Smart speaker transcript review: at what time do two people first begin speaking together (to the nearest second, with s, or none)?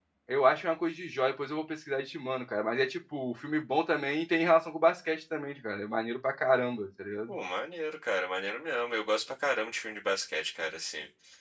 none